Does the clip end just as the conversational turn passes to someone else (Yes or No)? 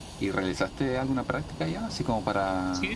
No